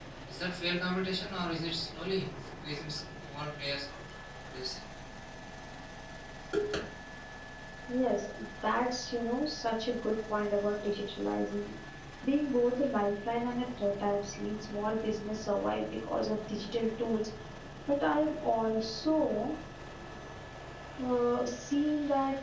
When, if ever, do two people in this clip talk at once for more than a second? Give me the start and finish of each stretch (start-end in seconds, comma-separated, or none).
none